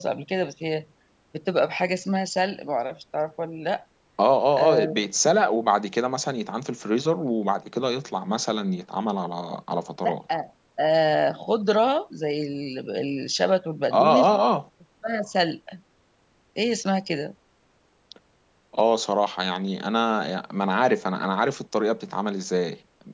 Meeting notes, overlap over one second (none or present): none